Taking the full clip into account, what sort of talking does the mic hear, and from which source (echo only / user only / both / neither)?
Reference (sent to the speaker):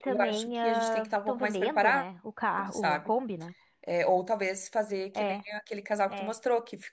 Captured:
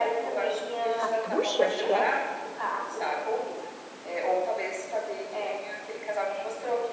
both